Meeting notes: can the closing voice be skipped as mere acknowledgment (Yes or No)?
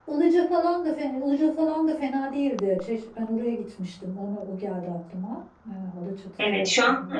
No